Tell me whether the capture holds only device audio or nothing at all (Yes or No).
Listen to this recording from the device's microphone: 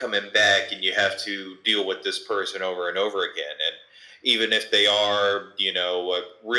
Yes